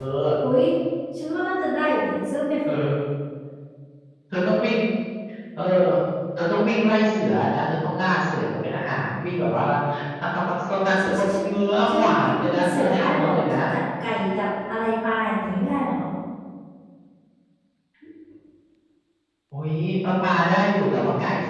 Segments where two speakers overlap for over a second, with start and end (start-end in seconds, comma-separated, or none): 11.9-13.6